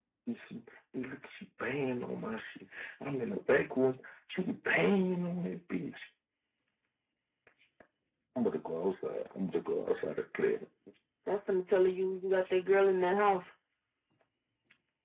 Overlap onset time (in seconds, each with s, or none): none